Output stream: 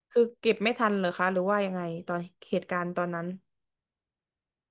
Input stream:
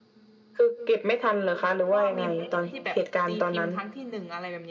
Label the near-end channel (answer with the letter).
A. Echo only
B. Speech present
B